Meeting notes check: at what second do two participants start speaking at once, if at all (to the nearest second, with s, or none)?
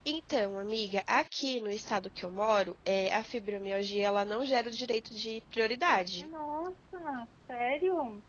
none